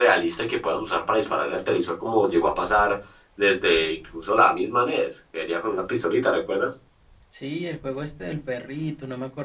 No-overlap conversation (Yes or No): Yes